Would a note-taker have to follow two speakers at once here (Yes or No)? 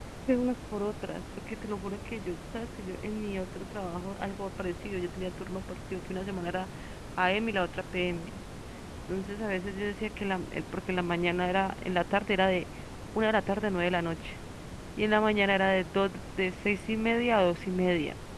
No